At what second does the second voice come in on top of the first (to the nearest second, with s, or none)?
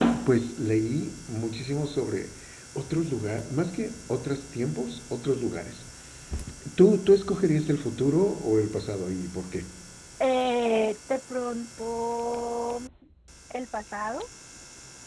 none